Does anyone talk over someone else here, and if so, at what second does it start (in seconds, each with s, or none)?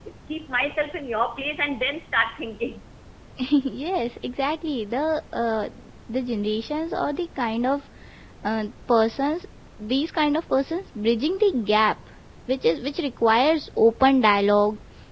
none